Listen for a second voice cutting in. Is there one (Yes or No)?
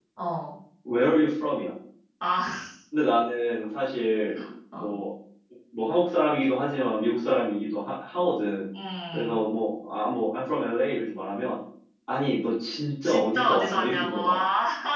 Yes